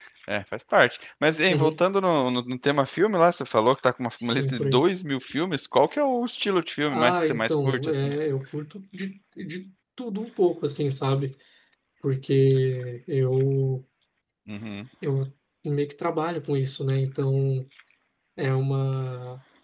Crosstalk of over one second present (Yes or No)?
Yes